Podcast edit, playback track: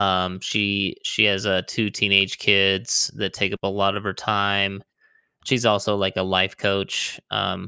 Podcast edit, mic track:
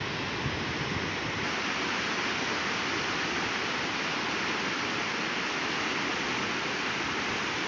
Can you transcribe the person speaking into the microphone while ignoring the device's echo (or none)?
none